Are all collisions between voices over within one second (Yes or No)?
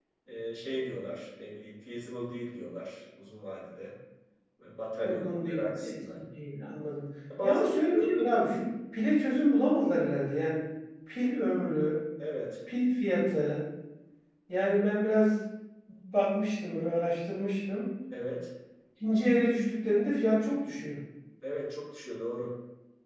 No